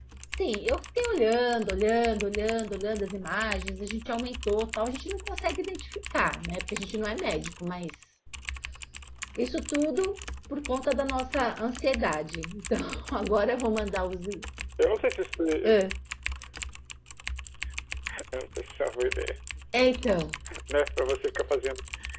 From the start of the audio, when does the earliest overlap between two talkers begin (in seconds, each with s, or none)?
none